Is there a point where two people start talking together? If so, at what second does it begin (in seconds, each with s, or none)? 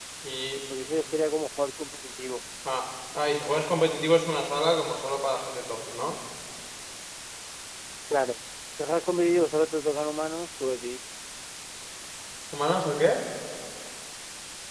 none